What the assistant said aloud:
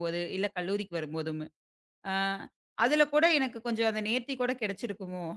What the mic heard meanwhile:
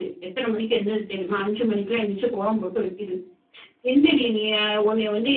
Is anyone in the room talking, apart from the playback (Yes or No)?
Yes